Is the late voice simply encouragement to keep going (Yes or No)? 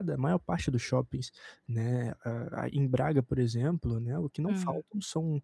Yes